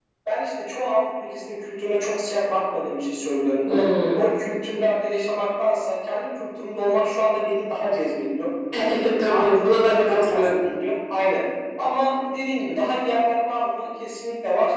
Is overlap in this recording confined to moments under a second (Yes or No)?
No